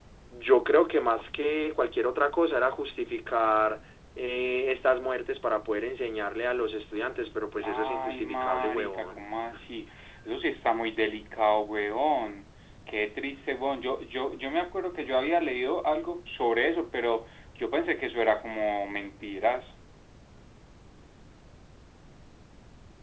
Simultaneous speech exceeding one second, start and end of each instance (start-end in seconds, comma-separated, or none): 7.6-9.2